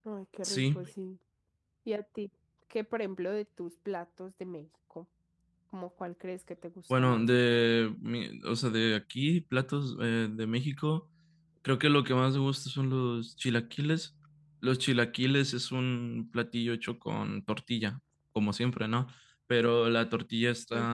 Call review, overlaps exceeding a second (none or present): none